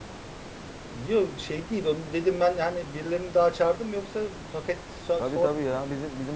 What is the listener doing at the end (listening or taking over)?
taking over